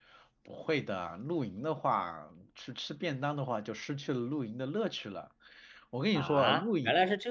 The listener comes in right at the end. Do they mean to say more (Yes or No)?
Yes